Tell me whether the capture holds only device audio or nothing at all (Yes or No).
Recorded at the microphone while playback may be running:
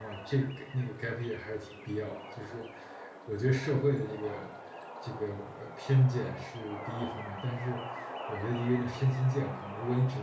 No